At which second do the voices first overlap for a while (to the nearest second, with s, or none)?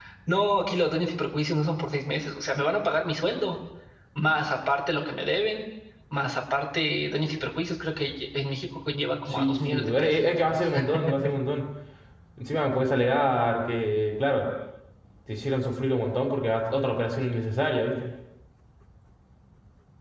9 s